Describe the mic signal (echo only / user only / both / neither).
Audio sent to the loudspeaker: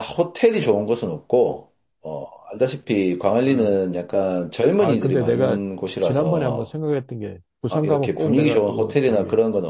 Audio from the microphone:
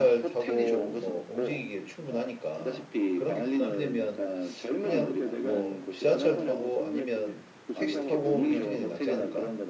both